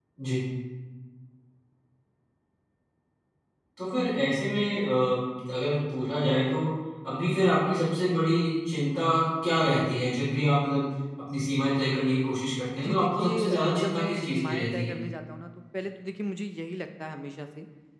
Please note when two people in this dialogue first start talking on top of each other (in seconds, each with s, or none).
12.8 s